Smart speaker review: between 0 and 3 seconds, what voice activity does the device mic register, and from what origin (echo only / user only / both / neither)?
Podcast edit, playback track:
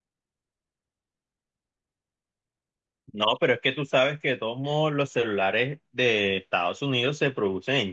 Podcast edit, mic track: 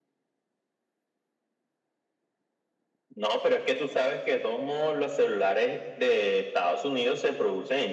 neither